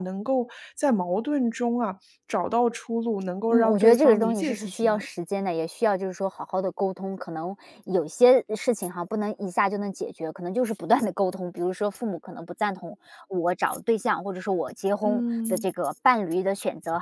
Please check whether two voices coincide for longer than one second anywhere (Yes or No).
Yes